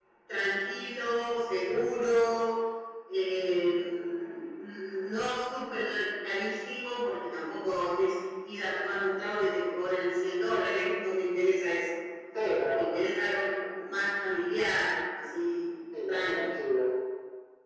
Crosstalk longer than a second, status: none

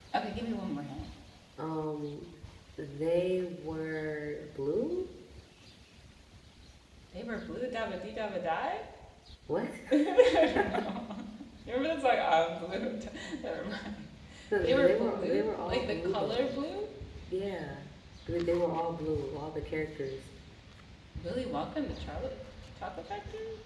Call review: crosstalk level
present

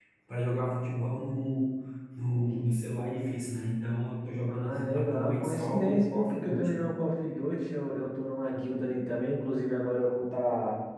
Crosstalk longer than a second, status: present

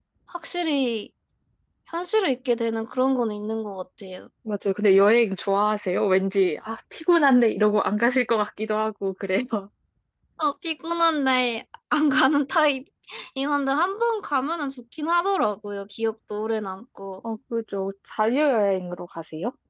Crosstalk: none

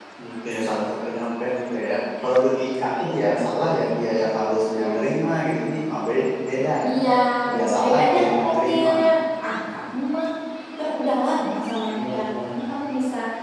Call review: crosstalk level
present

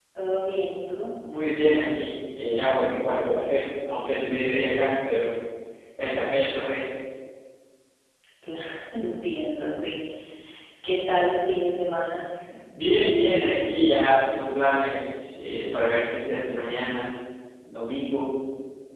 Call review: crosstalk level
none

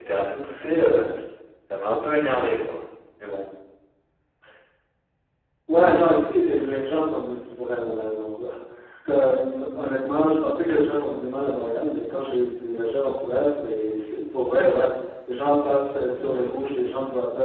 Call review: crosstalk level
none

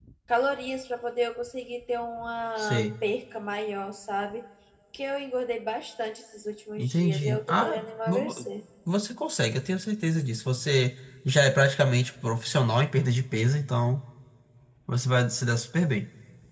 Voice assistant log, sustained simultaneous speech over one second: present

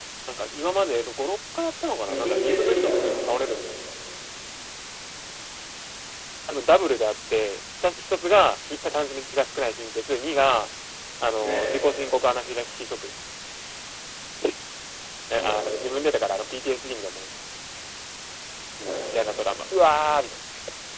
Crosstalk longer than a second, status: present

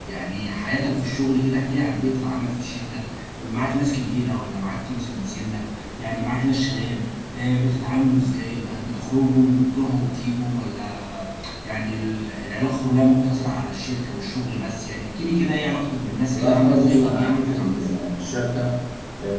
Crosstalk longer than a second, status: present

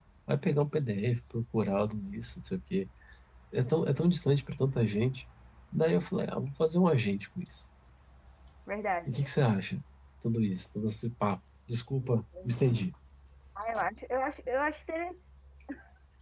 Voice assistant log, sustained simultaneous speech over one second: none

